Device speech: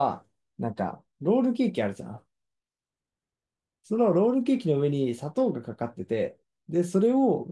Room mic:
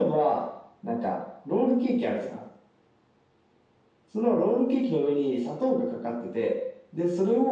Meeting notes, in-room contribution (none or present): none